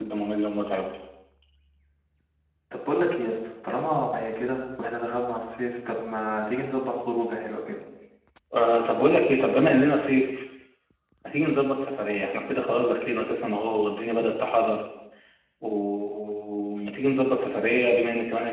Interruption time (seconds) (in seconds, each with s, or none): none